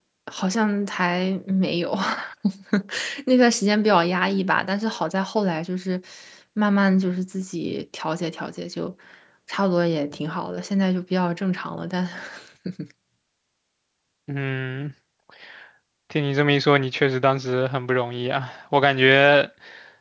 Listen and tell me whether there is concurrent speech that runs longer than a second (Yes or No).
No